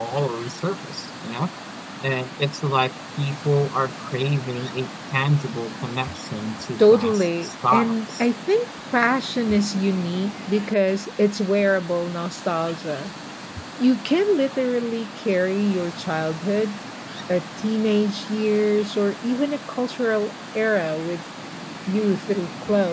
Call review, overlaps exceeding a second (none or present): present